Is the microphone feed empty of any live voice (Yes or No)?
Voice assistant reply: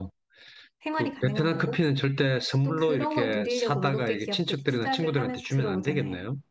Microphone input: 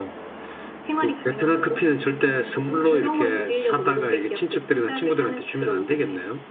Yes